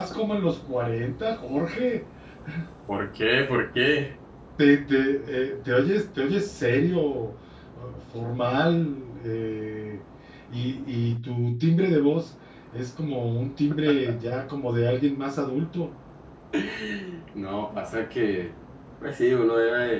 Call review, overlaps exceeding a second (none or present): none